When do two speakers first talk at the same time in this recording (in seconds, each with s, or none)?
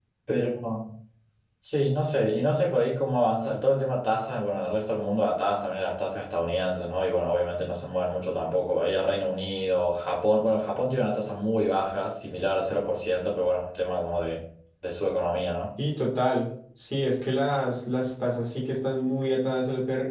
none